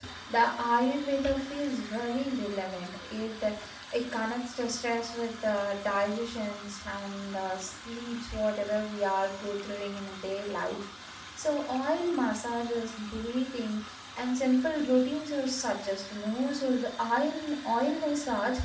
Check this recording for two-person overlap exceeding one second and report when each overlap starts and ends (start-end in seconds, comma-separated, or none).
none